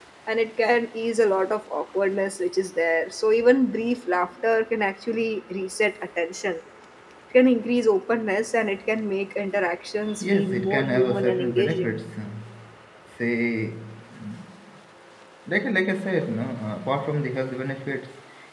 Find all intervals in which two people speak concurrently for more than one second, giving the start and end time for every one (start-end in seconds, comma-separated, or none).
10.2-11.9